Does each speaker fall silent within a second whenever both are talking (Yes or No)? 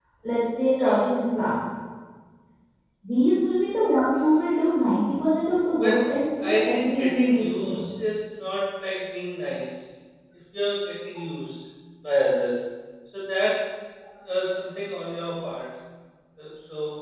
No